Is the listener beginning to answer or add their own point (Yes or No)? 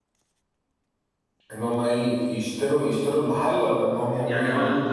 Yes